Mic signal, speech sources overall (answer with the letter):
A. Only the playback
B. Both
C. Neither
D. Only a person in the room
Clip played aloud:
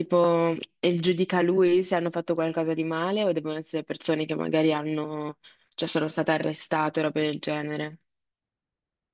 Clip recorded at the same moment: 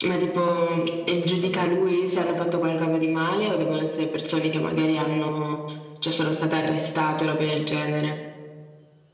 B